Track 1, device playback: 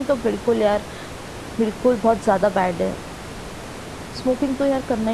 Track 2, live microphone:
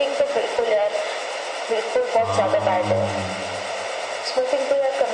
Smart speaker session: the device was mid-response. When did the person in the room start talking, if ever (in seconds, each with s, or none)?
2.2 s